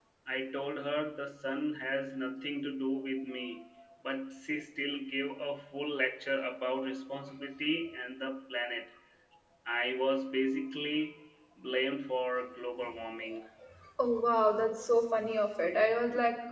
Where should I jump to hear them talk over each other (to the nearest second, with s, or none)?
none